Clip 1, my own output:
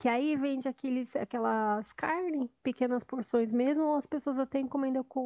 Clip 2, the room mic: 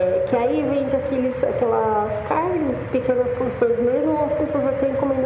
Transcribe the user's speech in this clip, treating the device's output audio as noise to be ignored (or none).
none